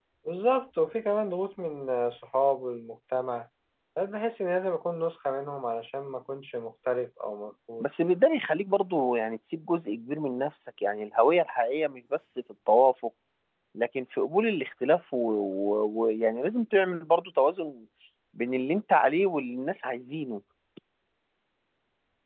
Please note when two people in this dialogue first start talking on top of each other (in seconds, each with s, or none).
none